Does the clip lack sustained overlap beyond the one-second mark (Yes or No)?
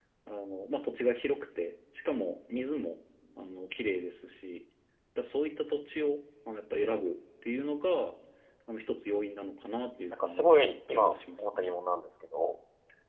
No